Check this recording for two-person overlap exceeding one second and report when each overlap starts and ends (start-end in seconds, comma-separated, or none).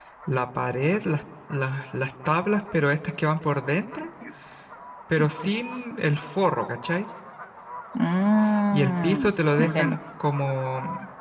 8.7-10.0